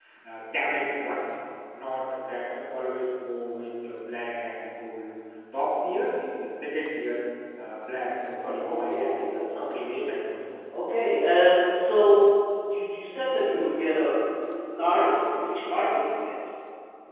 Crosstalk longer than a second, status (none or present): present